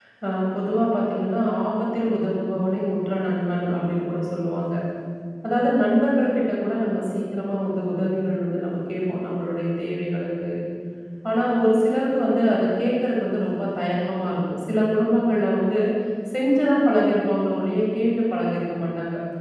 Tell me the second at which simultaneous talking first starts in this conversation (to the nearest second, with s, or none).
none